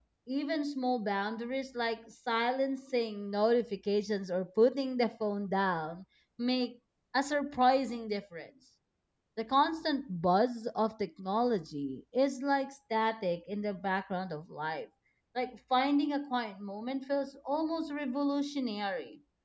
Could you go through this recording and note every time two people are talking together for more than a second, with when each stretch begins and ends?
none

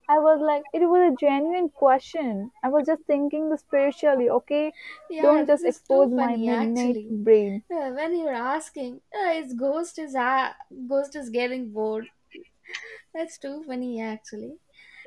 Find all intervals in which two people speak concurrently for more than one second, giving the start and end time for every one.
5.2-7.1

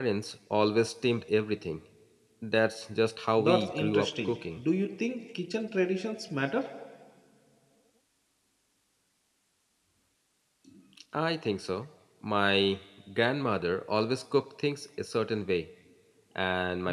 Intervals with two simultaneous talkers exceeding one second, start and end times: 3.4-4.6

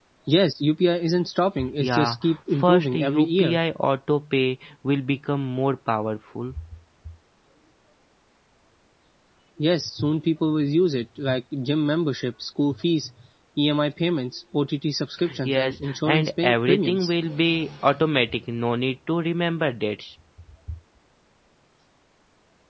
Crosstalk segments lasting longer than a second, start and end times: 1.8-3.6, 15.4-17.1

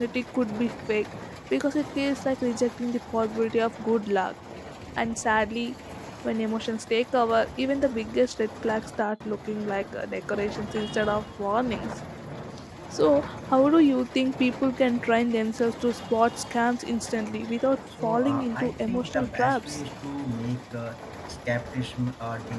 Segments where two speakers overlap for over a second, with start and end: 18.0-19.8

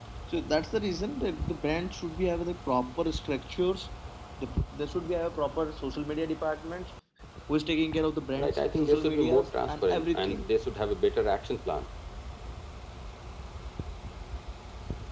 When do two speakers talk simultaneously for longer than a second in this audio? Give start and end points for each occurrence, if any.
8.4-10.4

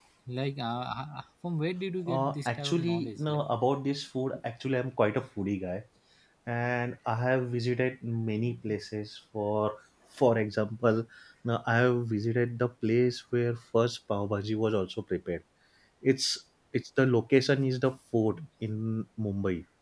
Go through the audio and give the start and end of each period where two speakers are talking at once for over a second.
2.1-3.5

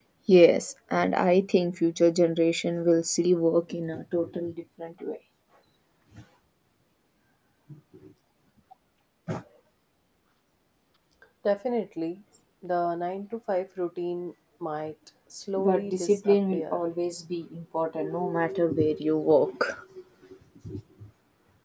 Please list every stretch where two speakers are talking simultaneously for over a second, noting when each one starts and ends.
15.6-16.8

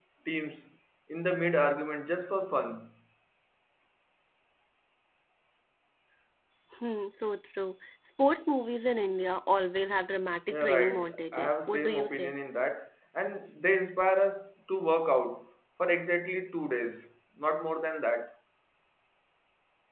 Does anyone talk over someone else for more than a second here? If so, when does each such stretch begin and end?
10.5-12.3

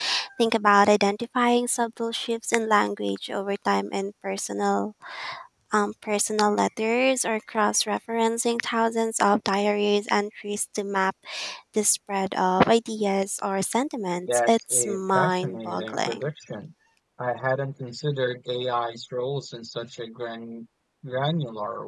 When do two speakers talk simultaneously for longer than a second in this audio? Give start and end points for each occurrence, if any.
14.3-16.3

